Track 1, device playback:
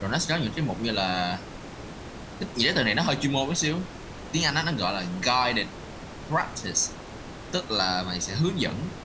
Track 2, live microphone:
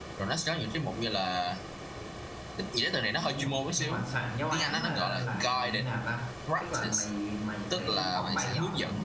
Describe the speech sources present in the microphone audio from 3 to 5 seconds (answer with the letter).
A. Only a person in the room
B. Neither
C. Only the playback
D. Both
D